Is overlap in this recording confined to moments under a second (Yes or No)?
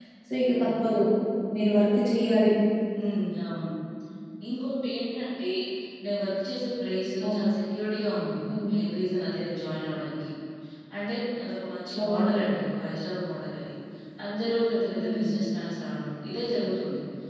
Yes